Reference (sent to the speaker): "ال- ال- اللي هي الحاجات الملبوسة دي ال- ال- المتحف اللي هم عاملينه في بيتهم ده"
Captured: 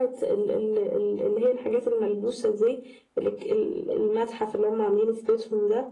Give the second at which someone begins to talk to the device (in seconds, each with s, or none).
none